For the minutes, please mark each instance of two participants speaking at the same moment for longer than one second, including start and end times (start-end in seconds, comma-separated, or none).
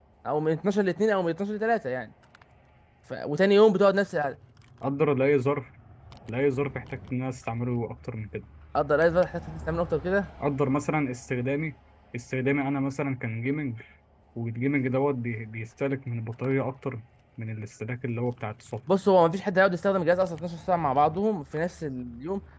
none